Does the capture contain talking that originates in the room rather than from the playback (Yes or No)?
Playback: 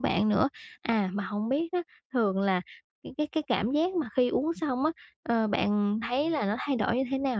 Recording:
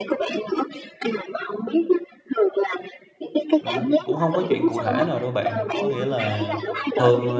Yes